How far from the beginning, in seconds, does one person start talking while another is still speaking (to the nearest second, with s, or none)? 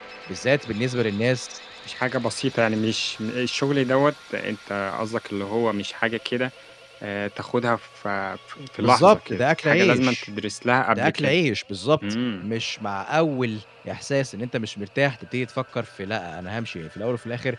9 s